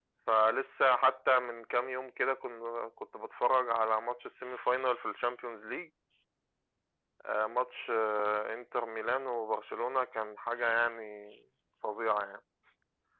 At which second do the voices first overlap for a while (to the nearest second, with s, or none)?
none